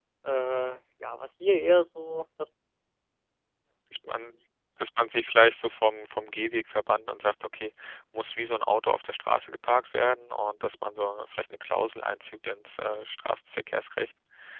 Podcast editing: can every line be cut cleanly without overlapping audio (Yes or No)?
Yes